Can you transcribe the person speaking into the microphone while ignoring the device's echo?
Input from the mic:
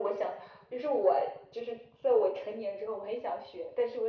none

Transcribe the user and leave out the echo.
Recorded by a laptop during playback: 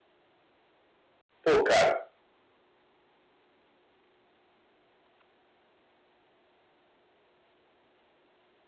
Pô, cara,

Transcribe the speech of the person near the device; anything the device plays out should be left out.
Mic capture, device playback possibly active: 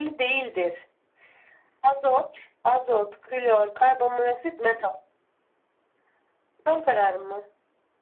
none

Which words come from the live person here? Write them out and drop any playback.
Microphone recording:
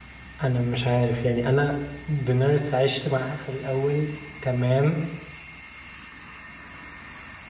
انا مش عارف يعني انا دينيرس عشت معاها في الاول تمام

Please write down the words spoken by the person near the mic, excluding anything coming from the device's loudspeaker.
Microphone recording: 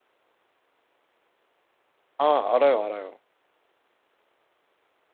아, 알아요, 알아요.

